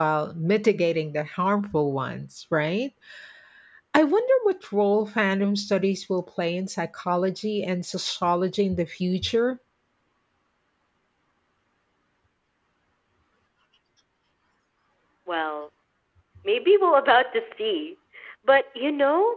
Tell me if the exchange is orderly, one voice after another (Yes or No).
Yes